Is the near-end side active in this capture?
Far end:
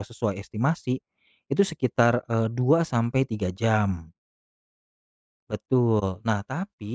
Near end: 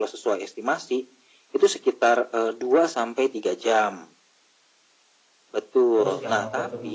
Yes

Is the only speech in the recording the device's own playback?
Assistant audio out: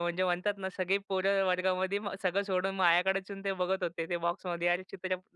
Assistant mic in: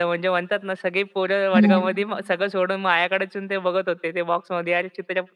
No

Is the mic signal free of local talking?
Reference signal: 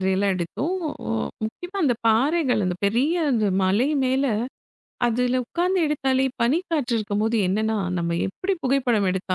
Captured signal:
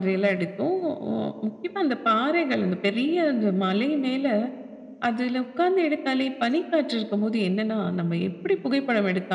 Yes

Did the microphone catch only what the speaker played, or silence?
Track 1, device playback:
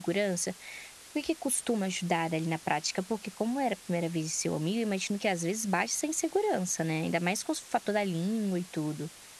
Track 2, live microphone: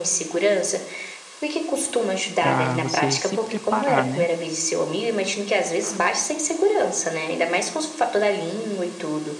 No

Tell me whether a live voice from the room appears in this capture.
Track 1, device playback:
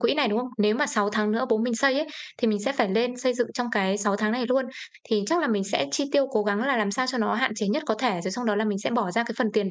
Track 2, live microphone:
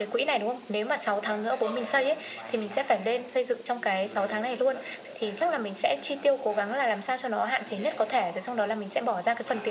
Yes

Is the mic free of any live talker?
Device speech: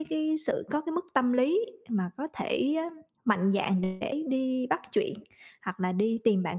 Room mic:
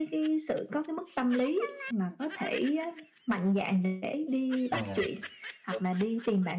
No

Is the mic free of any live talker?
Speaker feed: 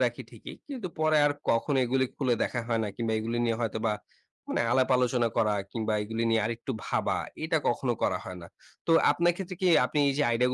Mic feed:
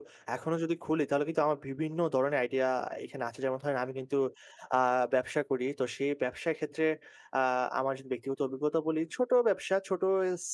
No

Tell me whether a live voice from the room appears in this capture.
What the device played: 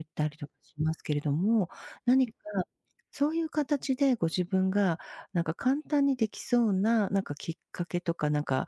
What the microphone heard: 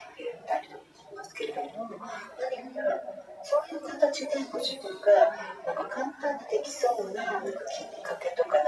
No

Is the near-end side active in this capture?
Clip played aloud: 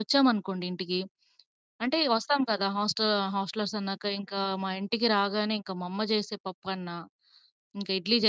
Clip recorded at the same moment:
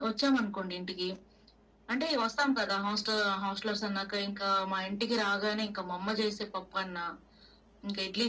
No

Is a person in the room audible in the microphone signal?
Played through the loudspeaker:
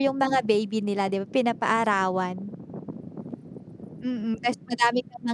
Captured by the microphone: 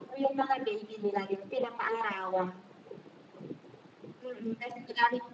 No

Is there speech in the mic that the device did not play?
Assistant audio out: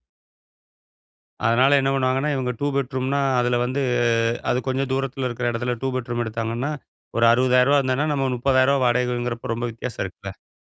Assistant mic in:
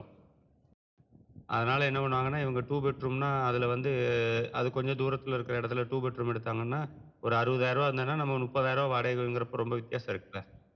No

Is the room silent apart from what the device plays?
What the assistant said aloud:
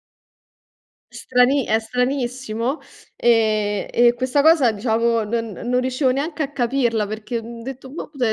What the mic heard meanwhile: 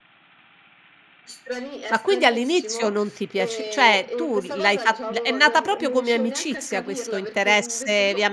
No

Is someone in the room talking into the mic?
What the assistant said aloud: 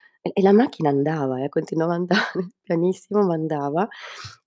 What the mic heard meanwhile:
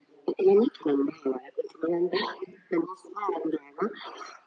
No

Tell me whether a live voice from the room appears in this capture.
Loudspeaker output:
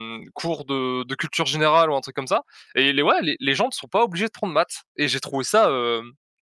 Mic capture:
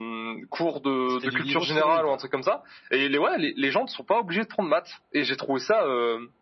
Yes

